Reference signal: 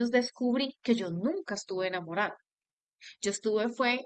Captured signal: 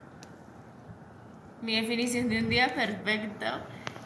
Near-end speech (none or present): present